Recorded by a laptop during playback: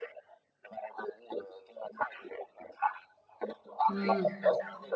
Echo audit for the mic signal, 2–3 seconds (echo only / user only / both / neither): echo only